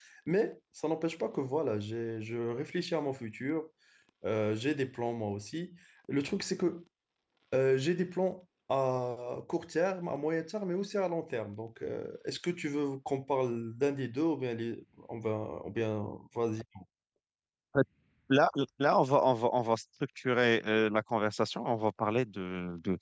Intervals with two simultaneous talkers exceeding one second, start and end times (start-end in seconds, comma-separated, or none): none